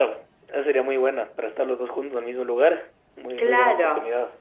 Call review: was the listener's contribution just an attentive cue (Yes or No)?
No